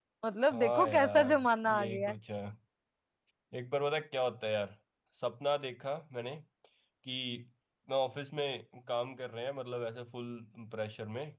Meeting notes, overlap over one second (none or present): present